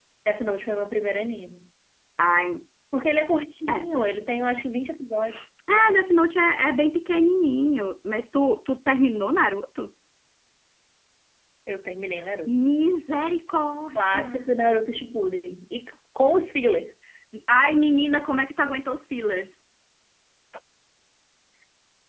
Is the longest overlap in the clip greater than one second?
No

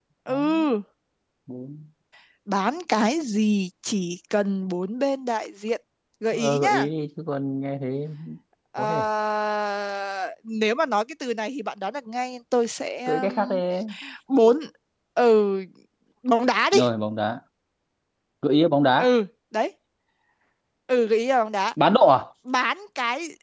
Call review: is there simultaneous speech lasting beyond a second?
No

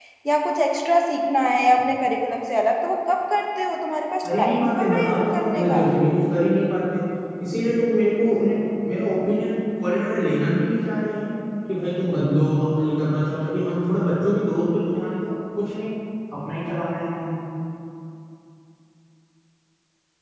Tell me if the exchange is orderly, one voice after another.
No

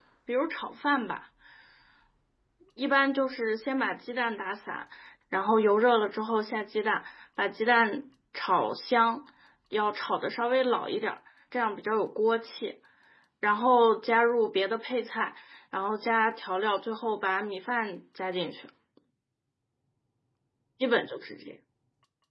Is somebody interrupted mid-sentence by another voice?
No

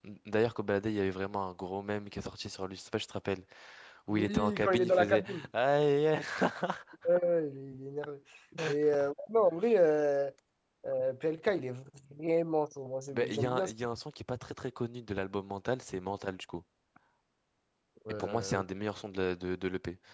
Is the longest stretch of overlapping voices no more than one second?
No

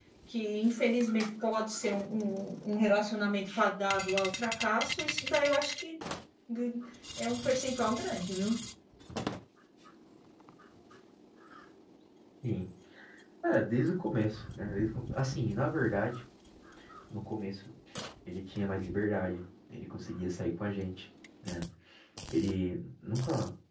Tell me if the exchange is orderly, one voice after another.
Yes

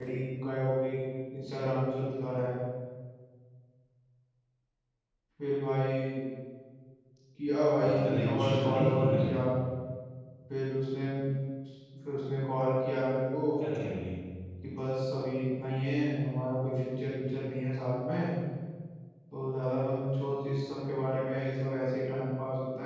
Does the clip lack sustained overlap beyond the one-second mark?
No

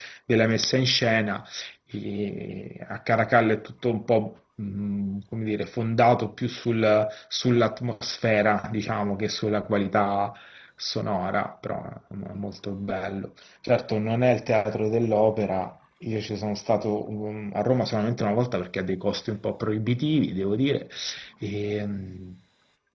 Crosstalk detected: No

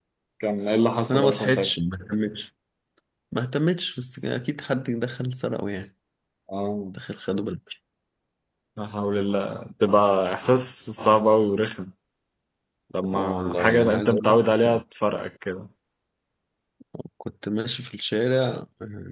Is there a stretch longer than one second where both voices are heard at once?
Yes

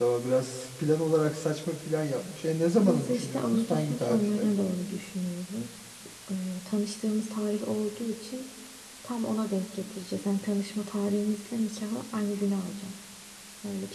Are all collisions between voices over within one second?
No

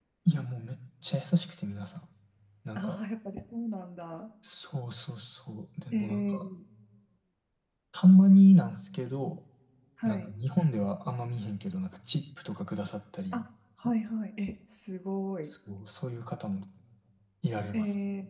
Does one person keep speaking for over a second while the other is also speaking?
No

